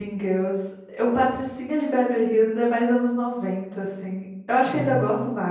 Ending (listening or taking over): listening